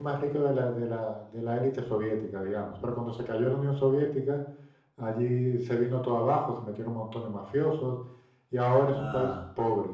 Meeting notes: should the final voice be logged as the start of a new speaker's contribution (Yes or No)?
No